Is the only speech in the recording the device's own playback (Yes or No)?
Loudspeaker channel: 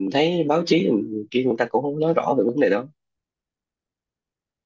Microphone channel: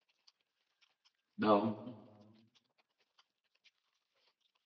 No